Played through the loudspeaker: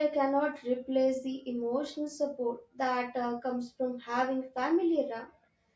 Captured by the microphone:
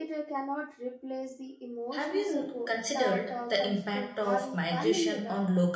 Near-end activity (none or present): present